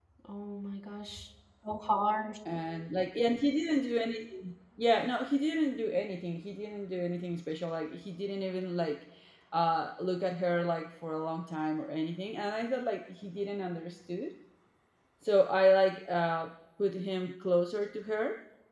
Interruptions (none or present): none